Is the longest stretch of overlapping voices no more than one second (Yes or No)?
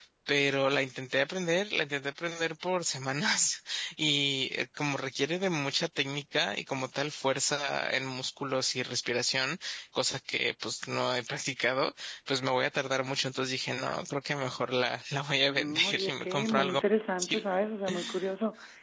No